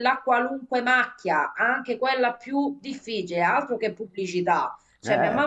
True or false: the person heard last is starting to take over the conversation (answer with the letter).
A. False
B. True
A